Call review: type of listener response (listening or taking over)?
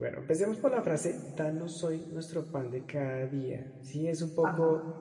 listening